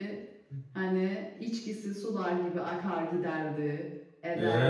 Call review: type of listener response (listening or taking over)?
taking over